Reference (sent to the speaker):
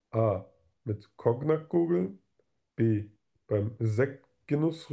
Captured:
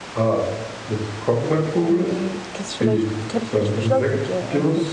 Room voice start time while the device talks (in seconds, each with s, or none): 1.9 s